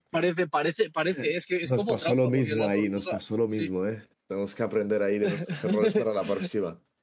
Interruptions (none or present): present